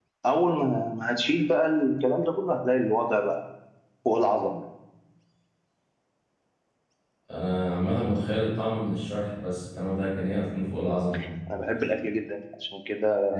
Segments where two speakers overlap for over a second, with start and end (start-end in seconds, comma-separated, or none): none